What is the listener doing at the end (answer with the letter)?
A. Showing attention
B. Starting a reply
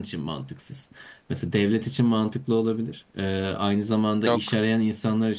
A